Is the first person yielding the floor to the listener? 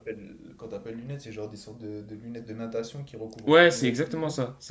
Yes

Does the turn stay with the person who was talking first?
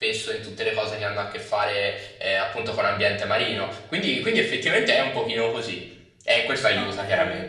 No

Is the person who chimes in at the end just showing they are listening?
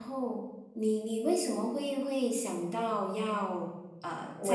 No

